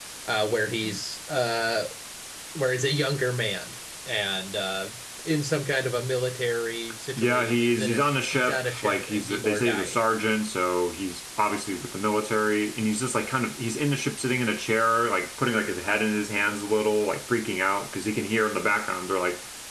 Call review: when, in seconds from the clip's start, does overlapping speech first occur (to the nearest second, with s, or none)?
7 s